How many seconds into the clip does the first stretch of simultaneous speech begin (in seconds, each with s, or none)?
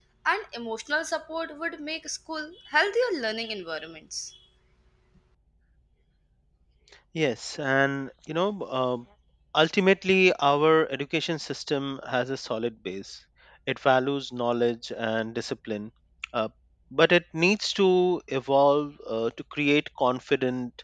none